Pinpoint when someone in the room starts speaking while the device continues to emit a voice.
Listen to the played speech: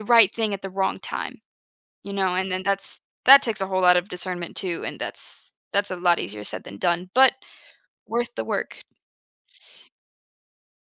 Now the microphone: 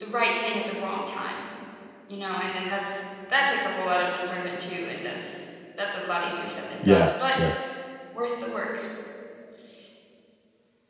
7 s

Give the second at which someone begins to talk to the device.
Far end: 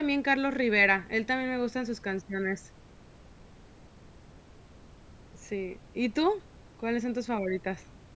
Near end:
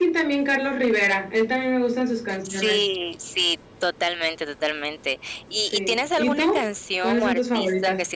2 s

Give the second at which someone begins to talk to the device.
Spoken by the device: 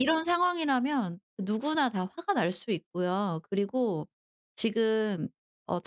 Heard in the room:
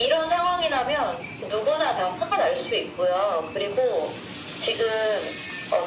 none

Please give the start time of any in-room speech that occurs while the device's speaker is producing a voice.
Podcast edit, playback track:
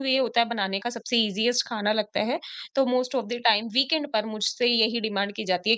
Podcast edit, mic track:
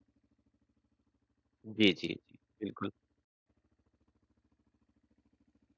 2 s

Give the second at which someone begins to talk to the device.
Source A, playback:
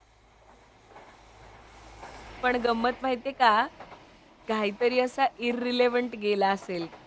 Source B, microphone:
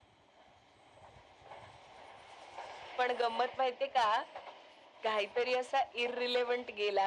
none

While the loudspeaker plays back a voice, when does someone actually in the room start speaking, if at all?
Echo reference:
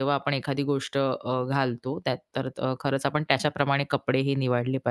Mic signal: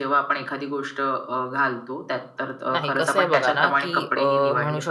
3 s

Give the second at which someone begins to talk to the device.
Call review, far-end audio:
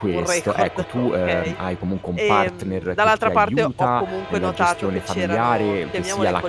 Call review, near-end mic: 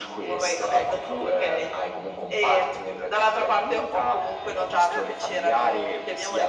5 s

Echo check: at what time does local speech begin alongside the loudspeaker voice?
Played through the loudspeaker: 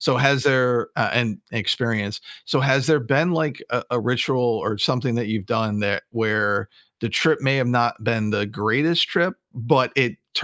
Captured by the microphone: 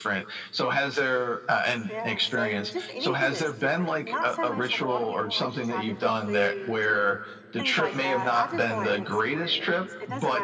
2 s

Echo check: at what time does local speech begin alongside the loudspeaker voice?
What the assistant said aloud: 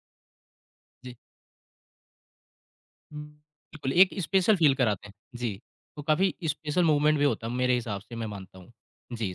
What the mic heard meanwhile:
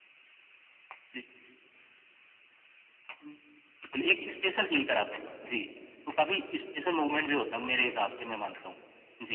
none

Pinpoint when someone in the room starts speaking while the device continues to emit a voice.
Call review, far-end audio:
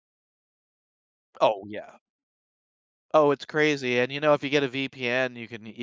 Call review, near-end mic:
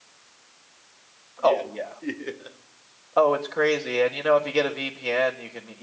1 s

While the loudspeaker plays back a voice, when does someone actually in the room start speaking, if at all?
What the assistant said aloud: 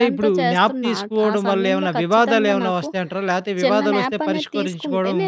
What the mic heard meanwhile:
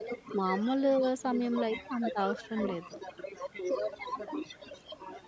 0 s

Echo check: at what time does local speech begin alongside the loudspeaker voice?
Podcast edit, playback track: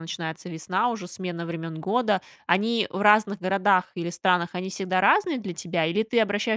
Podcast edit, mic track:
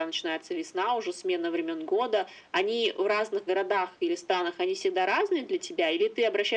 none

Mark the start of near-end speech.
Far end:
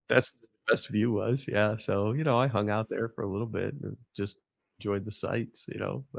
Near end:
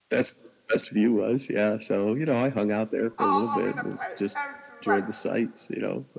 3 s

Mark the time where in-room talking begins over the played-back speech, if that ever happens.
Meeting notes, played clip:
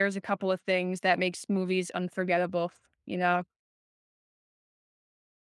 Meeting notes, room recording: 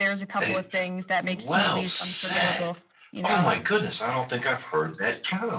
0 s

